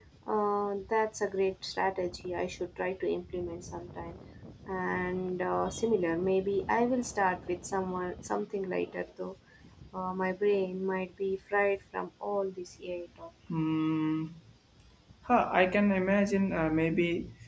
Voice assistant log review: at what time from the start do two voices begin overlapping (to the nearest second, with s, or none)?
none